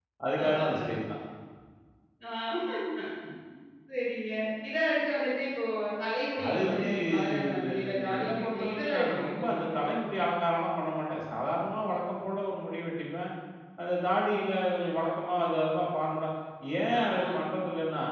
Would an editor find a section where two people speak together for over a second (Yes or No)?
Yes